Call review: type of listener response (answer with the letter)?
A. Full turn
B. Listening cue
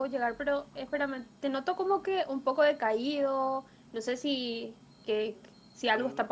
B